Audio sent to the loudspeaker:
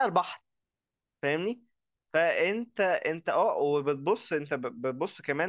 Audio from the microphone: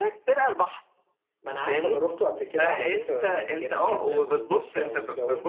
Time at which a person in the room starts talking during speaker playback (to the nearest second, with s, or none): 1 s